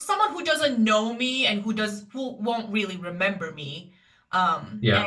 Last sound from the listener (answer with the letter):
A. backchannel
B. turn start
A